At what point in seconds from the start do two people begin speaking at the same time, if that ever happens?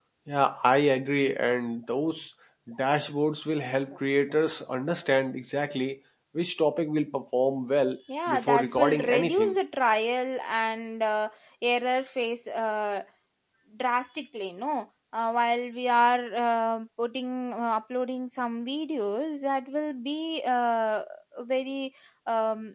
8 s

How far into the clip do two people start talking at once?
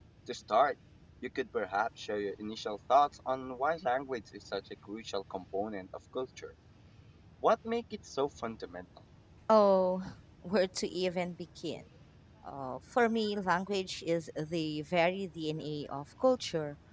none

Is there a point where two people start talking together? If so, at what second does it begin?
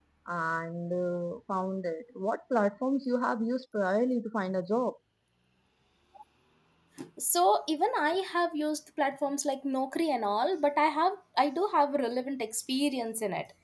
none

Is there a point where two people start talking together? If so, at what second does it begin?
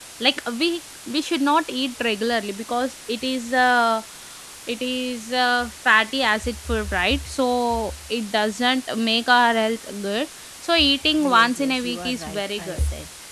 11 s

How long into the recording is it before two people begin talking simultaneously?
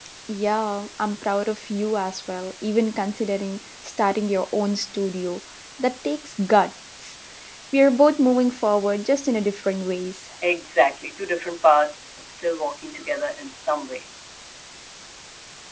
none

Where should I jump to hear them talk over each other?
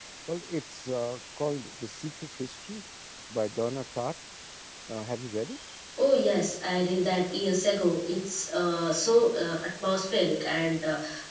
none

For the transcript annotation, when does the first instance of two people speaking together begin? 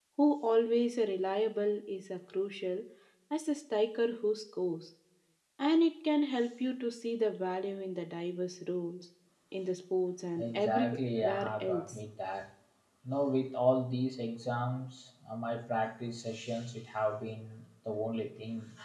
10 s

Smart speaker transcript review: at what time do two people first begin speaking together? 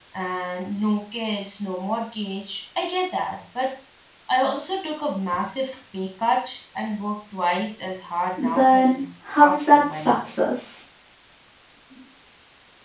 8 s

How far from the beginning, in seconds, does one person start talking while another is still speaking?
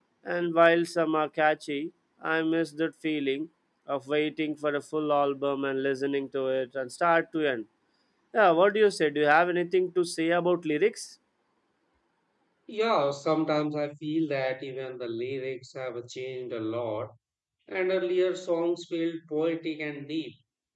none

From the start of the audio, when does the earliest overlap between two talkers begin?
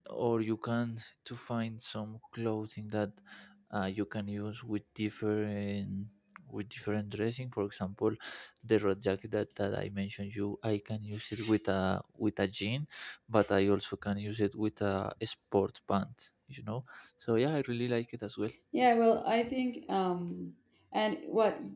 none

